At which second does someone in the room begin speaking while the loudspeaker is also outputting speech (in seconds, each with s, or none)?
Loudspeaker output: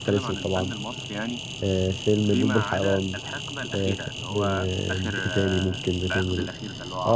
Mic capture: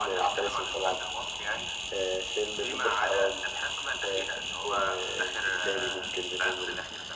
none